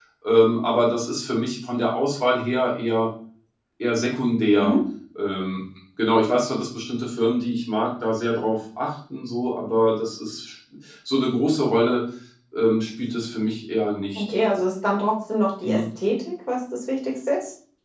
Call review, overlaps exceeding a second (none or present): none